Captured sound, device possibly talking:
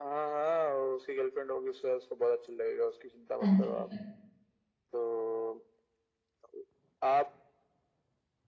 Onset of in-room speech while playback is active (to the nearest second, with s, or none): 3 s